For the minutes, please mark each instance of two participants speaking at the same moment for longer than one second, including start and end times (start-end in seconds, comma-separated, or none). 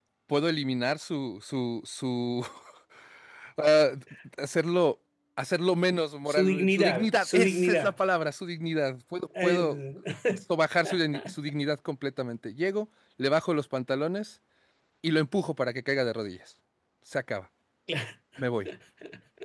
6.3-7.9